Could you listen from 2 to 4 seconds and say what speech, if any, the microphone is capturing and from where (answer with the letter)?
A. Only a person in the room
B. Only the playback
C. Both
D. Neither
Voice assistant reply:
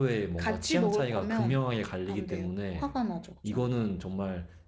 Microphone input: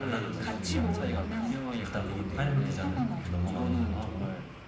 C